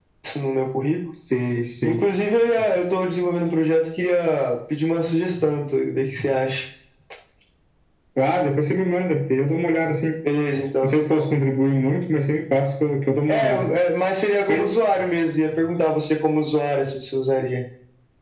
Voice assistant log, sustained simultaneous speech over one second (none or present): none